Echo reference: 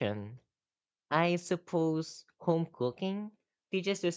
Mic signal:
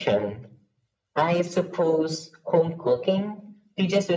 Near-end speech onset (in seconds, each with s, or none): none